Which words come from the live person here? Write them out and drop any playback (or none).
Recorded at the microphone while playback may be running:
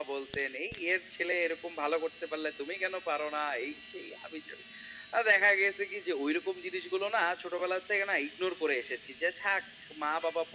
none